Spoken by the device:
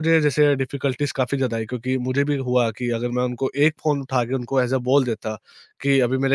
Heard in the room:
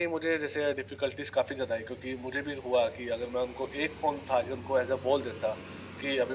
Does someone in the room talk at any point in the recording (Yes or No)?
No